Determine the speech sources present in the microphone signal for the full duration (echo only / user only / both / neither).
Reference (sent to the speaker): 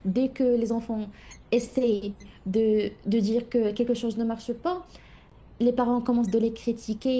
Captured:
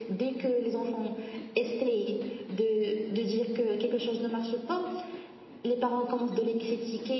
echo only